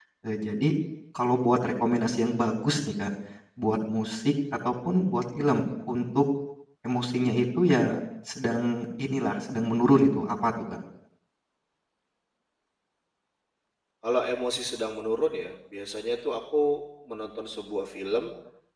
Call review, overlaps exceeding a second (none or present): none